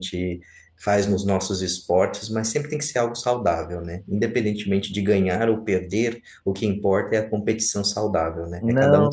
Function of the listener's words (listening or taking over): taking over